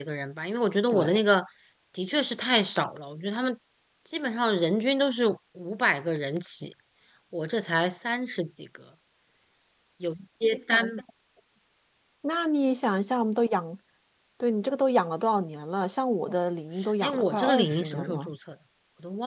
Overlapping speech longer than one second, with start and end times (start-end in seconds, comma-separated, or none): 17.0-18.3